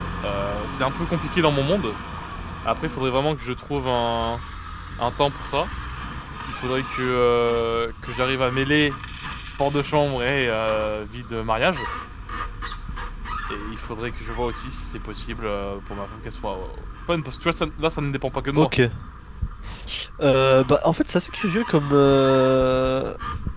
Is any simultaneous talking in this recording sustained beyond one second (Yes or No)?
No